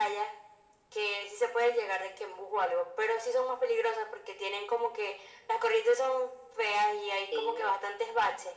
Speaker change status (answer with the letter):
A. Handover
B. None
B